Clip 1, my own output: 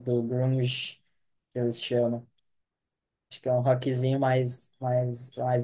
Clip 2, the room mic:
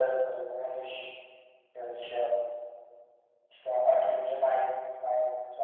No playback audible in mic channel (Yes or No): No